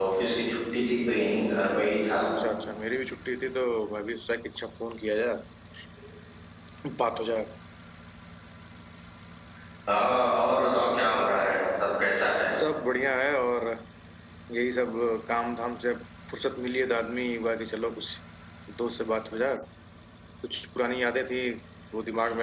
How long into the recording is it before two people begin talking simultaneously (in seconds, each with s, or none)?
none